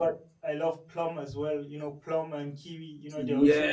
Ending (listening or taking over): taking over